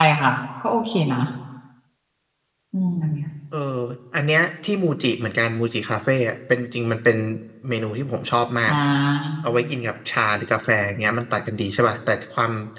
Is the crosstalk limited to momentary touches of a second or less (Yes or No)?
Yes